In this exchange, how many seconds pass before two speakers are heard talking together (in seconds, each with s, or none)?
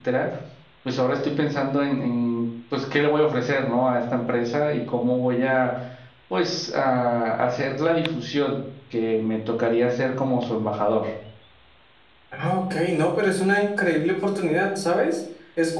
none